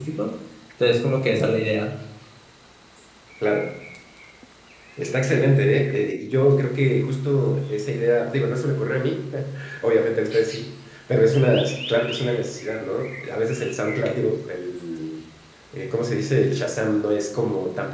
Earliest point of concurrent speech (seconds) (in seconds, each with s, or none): none